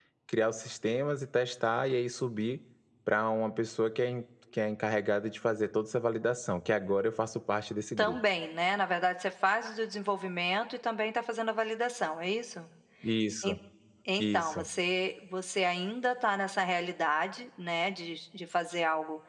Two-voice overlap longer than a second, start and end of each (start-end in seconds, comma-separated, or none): none